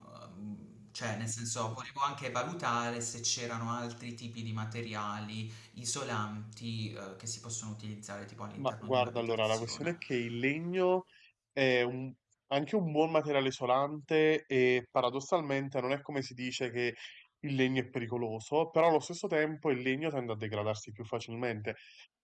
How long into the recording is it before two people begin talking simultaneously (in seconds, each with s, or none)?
8.6 s